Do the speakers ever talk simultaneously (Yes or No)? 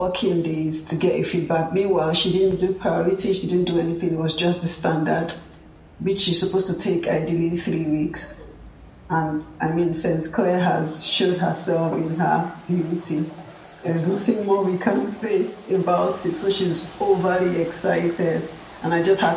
No